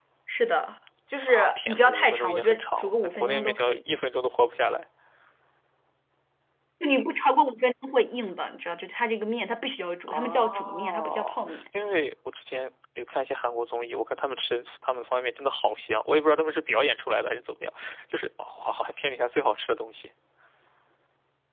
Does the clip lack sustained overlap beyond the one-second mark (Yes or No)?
No